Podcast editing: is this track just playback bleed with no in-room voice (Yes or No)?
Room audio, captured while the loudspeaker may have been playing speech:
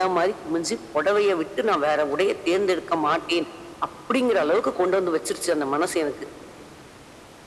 Yes